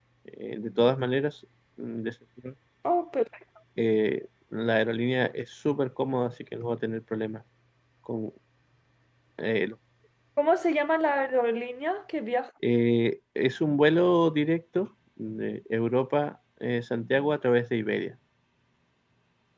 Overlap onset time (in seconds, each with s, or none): none